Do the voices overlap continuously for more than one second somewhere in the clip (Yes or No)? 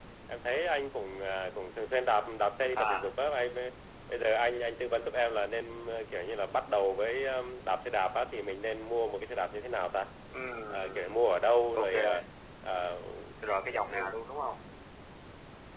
No